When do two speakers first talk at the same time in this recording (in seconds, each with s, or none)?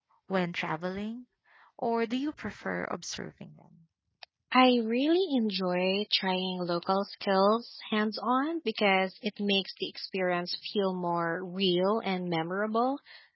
none